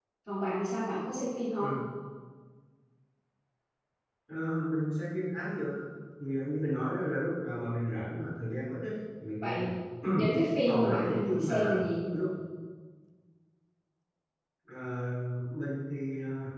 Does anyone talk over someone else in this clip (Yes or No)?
Yes